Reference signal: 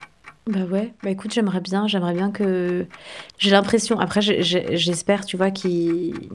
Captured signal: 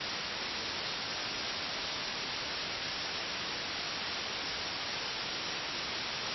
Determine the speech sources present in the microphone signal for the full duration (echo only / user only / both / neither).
neither